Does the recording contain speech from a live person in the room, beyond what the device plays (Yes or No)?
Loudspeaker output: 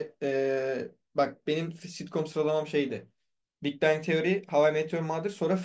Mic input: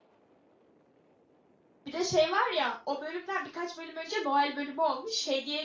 Yes